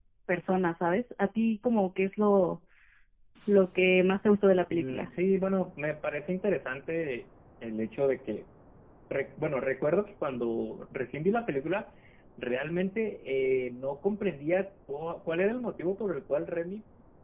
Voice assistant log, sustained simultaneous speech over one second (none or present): none